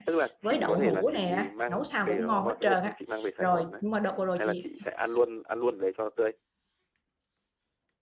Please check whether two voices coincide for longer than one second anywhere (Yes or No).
Yes